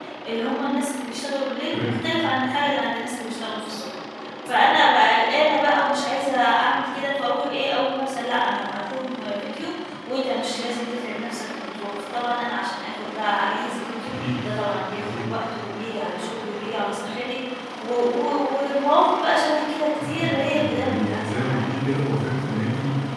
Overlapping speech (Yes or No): Yes